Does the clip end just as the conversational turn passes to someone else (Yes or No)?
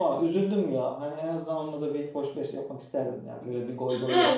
Yes